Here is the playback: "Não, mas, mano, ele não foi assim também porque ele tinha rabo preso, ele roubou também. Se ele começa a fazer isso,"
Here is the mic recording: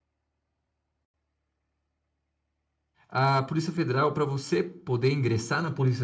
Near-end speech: present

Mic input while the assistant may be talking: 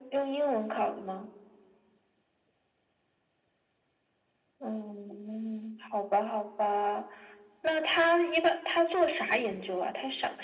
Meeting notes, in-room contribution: none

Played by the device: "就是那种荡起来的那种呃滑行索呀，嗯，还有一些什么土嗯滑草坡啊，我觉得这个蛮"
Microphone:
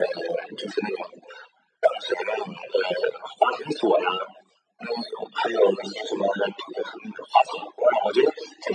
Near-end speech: none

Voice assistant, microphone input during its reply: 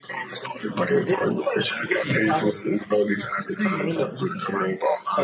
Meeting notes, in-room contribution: none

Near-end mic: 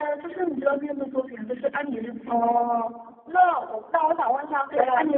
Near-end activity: none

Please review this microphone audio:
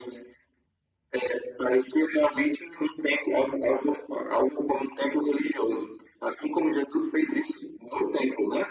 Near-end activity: none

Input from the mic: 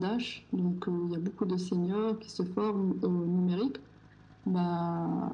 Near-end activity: none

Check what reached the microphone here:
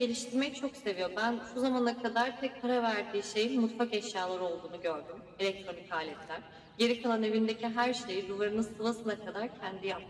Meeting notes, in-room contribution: none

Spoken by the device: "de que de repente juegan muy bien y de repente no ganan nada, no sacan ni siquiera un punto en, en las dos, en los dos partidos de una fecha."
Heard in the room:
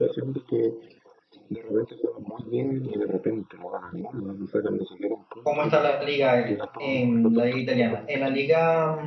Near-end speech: present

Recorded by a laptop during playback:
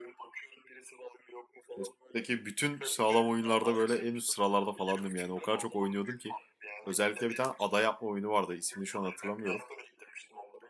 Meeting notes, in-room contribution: present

